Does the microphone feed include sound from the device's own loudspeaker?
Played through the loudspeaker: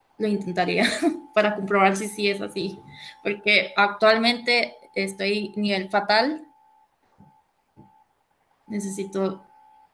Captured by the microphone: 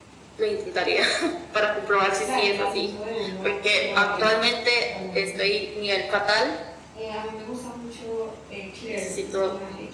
Yes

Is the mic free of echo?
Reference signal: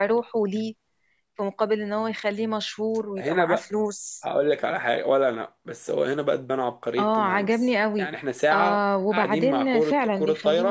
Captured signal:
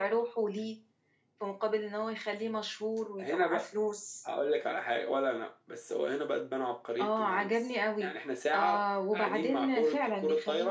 No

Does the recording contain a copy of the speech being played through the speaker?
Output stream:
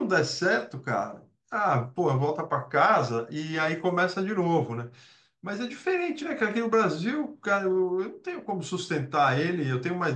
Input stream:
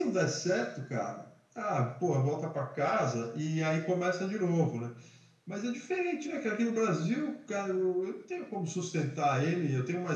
Yes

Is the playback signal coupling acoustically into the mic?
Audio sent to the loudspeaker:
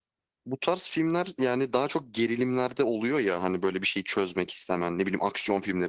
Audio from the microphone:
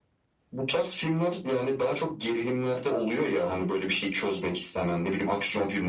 Yes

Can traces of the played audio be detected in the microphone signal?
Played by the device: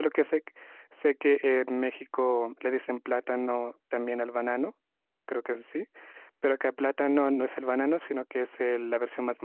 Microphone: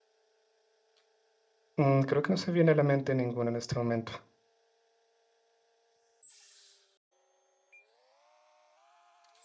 No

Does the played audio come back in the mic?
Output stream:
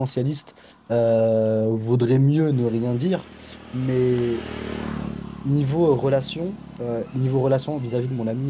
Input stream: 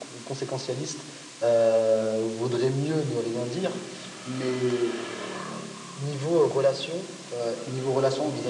Yes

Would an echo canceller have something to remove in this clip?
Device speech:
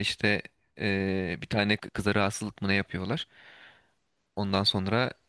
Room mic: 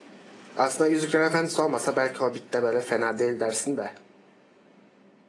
No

